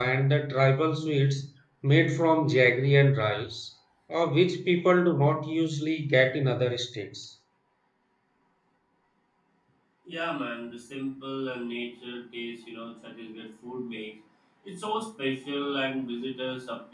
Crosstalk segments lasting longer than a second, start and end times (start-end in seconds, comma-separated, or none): none